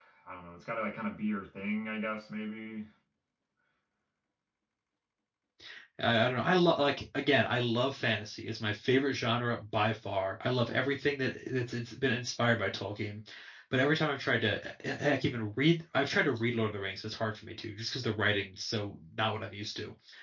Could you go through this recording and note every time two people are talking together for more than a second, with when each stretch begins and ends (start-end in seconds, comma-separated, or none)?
none